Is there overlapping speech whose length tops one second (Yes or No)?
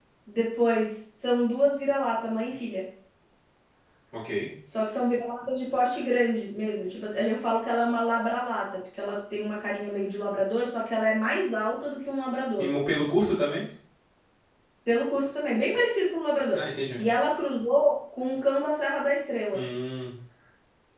No